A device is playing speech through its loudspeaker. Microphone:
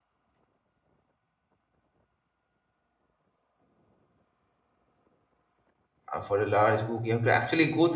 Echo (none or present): none